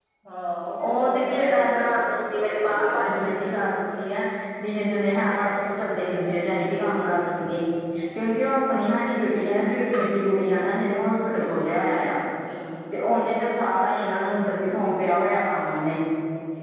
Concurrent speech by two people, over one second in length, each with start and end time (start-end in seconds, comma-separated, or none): 0.9-3.5